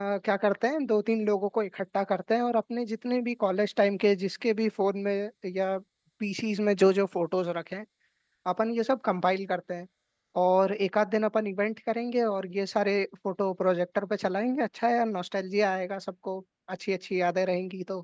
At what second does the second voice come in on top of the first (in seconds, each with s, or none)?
none